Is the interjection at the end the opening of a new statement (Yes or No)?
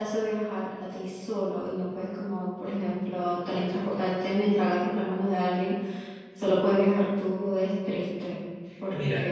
Yes